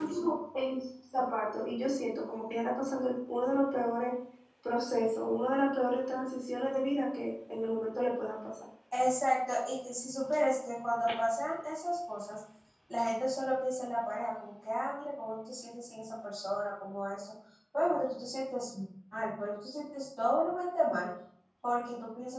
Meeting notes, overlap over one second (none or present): none